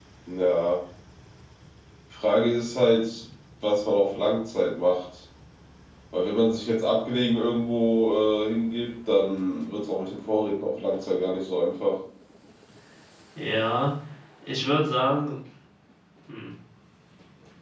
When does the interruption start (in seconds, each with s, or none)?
none